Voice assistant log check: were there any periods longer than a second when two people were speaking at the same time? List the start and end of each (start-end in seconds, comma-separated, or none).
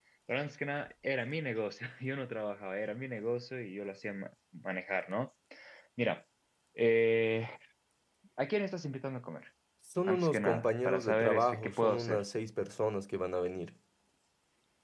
10.0-12.2